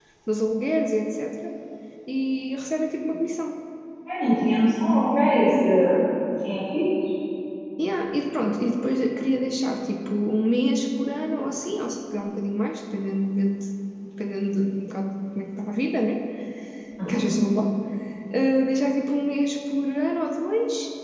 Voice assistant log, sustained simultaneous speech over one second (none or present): none